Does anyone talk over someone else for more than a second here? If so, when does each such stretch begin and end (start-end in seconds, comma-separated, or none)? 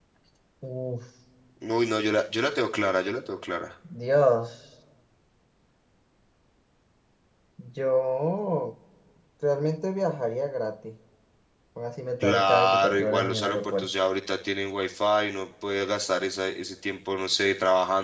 12.2-13.9